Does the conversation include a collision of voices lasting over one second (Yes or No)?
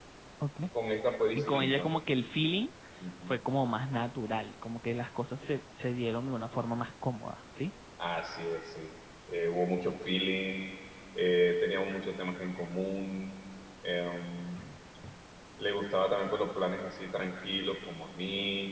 No